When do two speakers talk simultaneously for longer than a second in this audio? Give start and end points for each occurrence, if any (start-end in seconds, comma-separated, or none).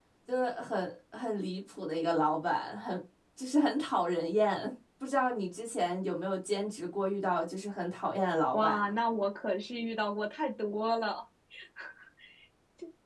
none